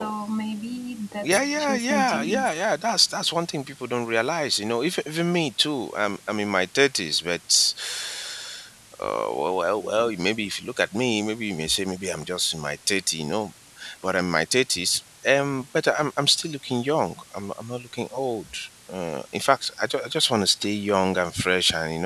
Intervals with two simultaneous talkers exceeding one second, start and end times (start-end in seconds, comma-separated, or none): 1.2-2.5